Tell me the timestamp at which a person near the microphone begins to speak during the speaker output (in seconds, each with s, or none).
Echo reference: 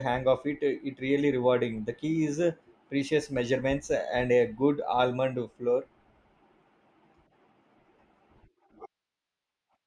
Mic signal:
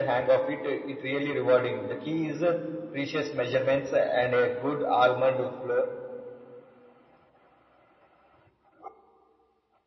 none